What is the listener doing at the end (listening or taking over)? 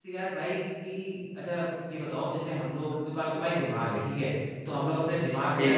listening